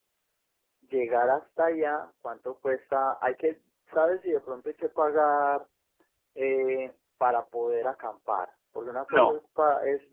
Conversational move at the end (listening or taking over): listening